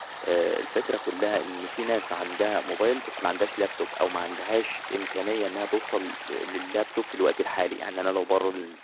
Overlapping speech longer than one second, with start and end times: none

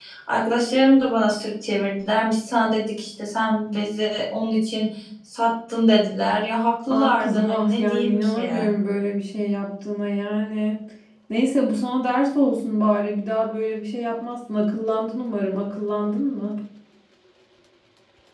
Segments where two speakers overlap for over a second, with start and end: 6.9-8.4

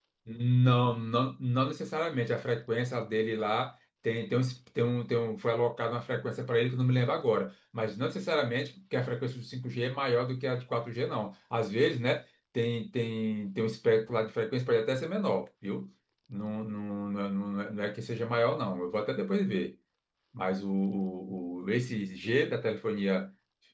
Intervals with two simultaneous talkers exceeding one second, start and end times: none

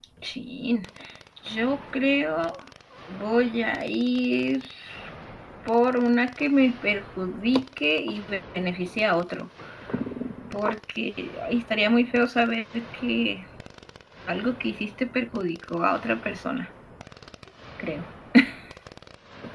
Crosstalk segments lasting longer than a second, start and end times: none

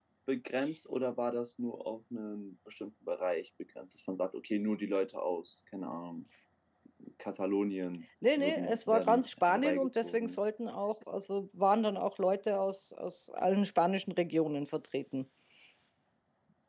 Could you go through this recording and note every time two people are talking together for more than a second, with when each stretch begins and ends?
8.4-10.3

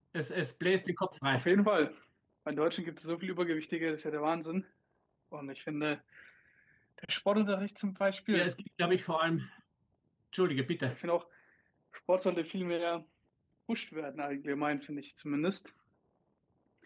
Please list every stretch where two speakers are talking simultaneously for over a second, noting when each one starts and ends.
none

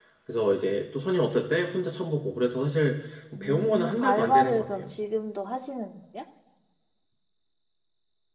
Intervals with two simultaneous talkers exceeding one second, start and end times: 3.4-4.9

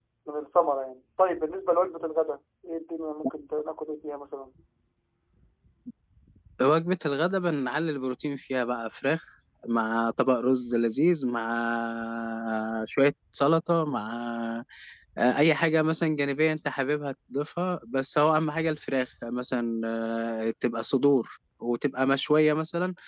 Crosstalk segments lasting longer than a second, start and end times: none

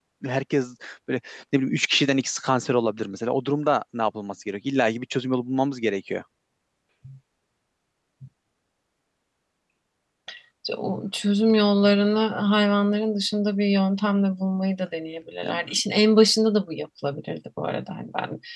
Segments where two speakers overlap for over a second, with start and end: none

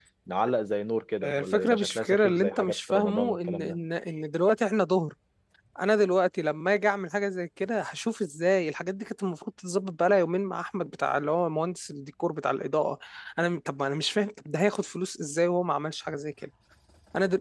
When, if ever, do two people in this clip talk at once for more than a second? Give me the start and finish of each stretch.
1.2-3.8

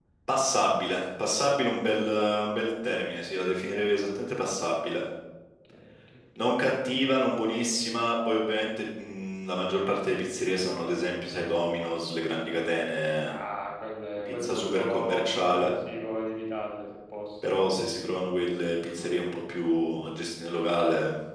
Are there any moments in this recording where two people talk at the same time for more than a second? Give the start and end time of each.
14.2-15.7

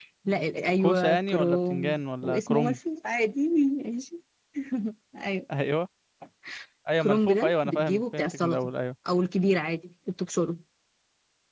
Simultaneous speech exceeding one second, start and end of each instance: 0.8-2.8, 7.0-8.7

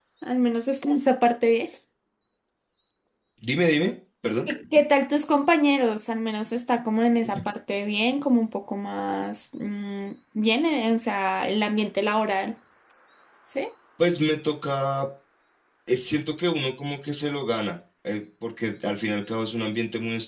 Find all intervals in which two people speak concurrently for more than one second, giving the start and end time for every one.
none

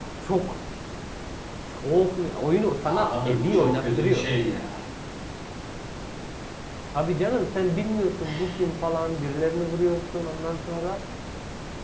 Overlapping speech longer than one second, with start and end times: 2.8-4.3

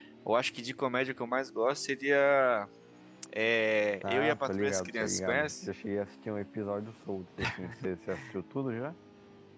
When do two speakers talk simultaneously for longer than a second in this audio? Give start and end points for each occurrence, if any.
4.0-5.7

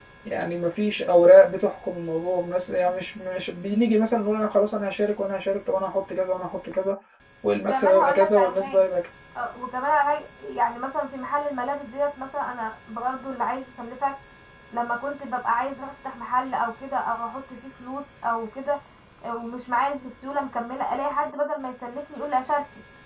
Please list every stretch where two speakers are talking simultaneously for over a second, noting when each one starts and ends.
7.6-8.8

